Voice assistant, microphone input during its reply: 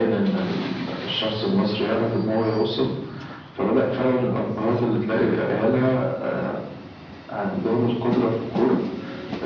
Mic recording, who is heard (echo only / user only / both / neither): echo only